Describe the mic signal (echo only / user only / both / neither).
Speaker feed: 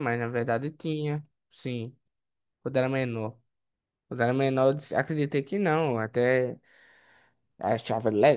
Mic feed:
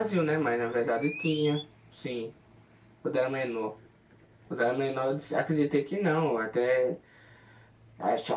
echo only